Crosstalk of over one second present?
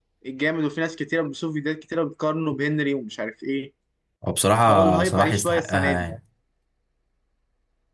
Yes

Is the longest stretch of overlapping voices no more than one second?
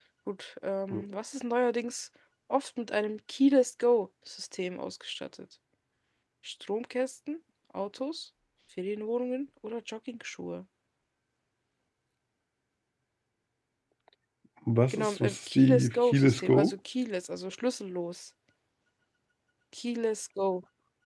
No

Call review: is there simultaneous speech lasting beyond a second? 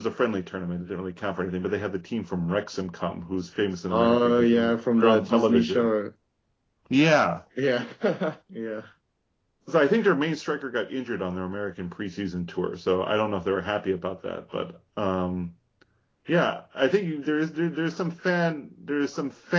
Yes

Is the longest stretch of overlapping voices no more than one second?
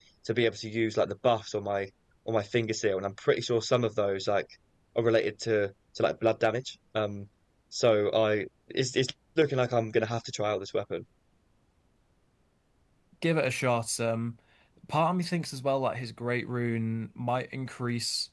Yes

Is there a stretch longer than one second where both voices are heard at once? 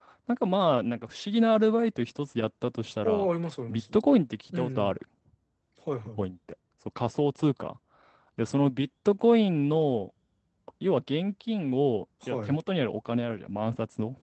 No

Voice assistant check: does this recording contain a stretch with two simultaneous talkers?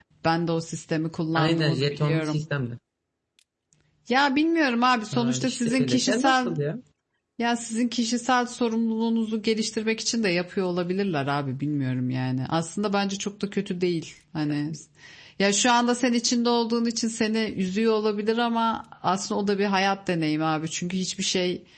Yes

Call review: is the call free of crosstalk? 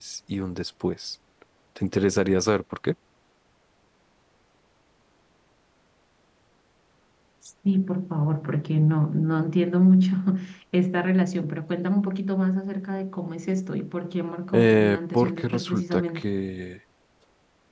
No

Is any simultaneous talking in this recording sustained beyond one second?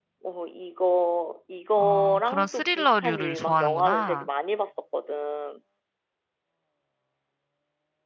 Yes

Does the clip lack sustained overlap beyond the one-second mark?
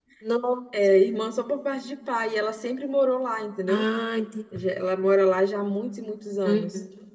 Yes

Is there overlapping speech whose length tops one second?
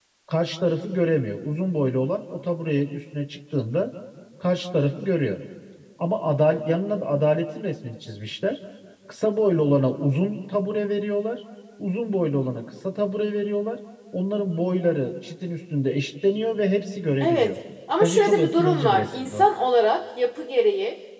Yes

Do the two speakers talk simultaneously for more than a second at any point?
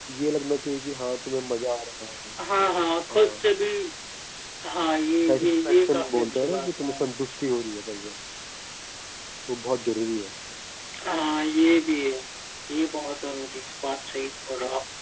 Yes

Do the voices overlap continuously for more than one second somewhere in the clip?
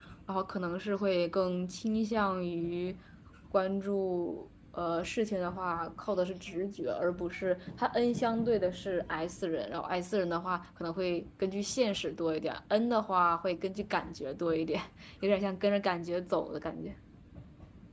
No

